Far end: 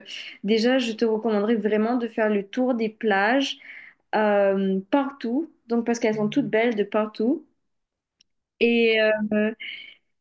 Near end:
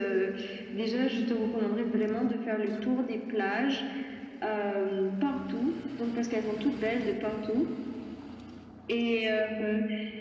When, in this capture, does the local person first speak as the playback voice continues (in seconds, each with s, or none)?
none